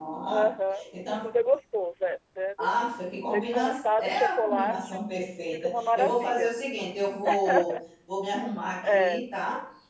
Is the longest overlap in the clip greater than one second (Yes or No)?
Yes